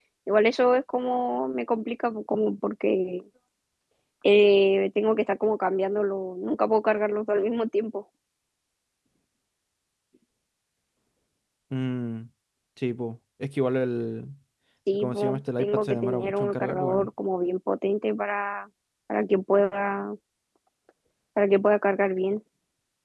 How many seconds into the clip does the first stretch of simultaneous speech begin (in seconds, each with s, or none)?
14.9 s